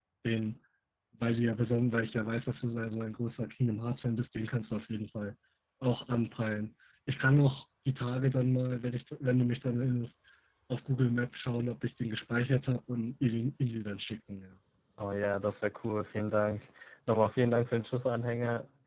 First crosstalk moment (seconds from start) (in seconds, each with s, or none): none